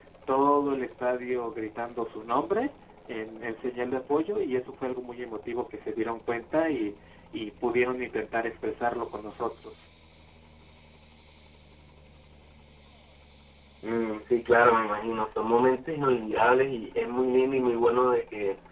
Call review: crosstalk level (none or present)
none